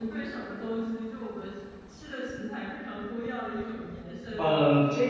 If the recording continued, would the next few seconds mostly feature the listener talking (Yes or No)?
Yes